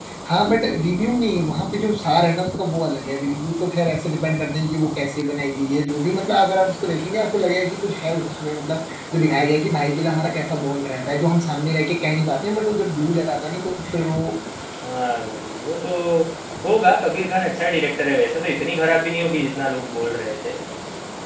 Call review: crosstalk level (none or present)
none